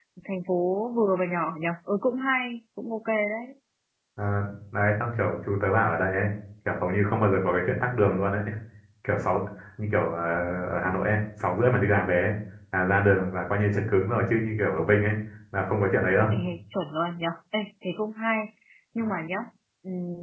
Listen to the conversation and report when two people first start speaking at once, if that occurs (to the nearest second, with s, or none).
none